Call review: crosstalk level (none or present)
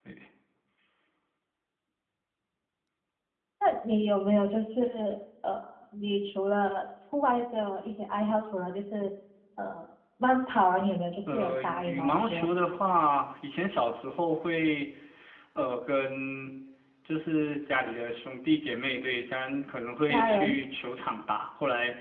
present